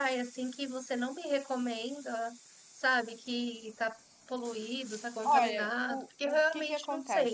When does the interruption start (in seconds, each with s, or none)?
5.2 s